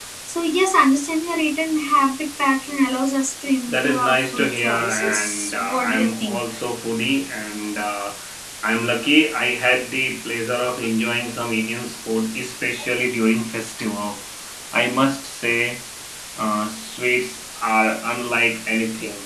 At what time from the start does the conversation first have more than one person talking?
4 s

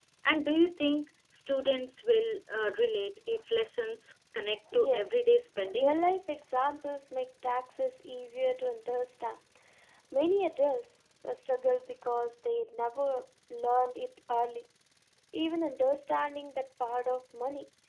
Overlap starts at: 5 s

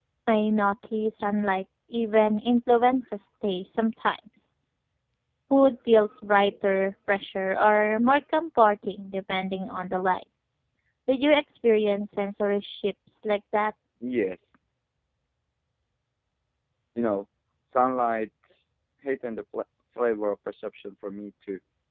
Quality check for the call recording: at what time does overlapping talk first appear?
none

